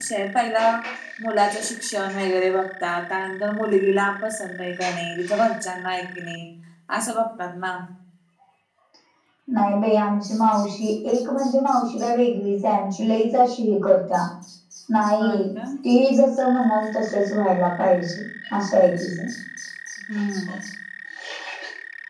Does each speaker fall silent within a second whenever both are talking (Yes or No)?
Yes